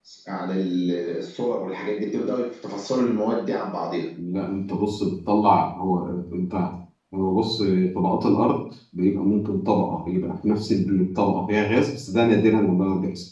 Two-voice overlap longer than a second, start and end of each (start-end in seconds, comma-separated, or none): none